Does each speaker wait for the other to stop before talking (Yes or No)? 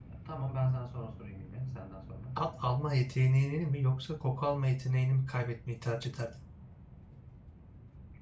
Yes